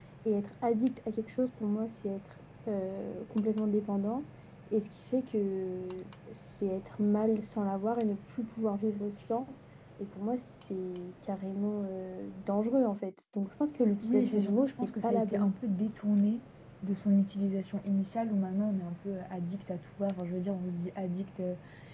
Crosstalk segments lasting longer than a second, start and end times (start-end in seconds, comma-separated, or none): 14.0-15.6